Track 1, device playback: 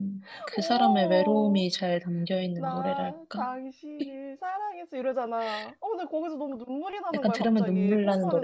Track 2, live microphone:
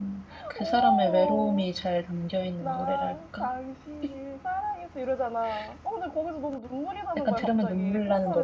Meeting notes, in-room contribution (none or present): none